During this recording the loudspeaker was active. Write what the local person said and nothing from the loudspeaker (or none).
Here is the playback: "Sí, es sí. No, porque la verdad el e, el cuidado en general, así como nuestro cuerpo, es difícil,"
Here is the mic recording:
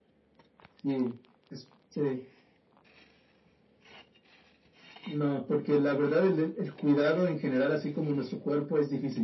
none